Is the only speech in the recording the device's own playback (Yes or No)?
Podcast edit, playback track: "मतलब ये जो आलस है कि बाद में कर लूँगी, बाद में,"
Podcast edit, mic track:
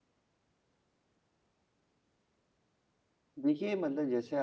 No